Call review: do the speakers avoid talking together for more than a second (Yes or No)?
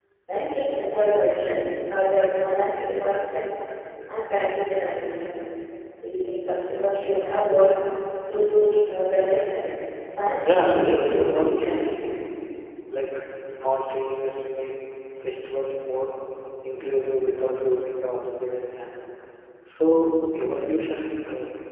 No